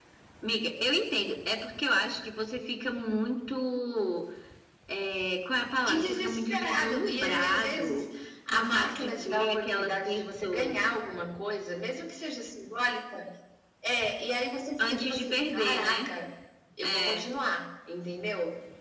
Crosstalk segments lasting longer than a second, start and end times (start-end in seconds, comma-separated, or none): 5.9-8.1, 8.5-10.9, 14.8-16.1